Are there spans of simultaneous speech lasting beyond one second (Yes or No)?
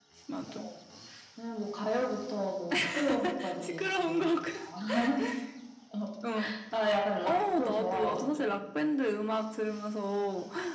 Yes